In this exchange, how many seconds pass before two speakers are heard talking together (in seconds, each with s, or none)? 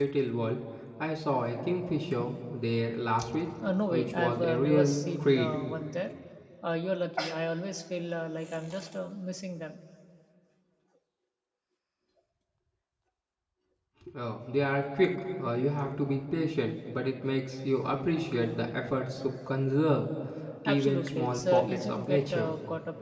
3.9 s